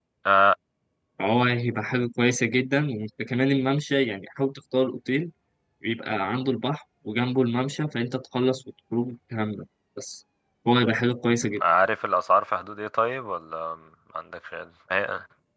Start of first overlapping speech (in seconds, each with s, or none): none